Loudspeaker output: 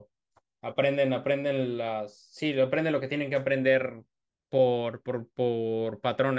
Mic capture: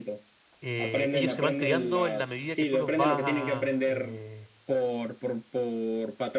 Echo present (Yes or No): Yes